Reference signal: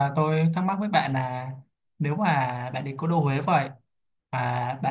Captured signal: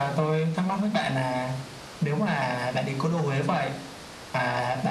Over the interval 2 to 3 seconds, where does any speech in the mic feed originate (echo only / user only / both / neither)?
echo only